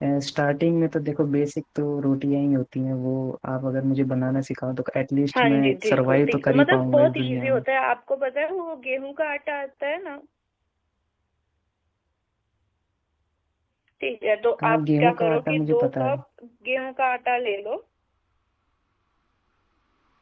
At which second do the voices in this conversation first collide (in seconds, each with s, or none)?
5.3 s